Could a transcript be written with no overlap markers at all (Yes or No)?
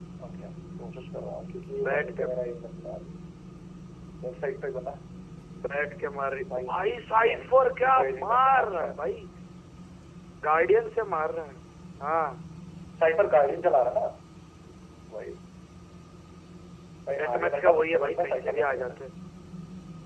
No